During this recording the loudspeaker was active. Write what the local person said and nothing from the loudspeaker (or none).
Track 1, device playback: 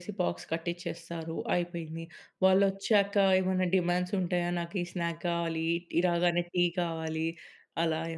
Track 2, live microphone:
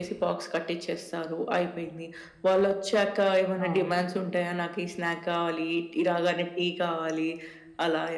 అవును.